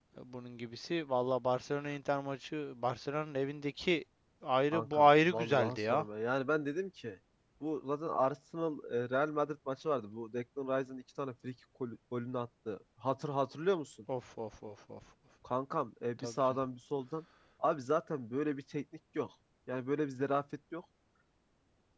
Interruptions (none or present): present